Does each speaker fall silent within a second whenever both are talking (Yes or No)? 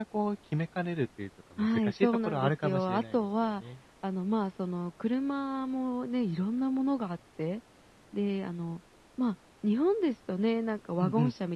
No